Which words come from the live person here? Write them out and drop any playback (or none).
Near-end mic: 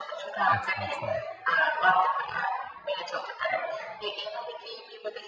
আচ্ছা, আচ্ছা।